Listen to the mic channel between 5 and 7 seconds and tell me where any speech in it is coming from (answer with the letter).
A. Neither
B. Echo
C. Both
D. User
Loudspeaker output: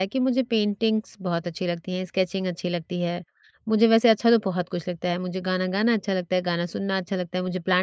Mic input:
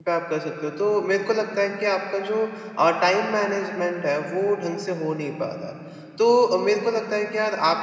D